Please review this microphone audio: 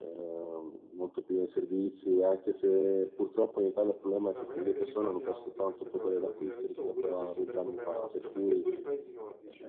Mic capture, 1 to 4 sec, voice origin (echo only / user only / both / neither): echo only